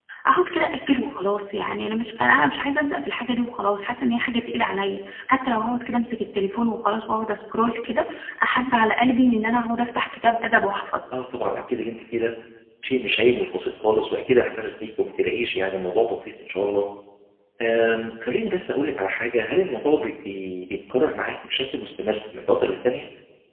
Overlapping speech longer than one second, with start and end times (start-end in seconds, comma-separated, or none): none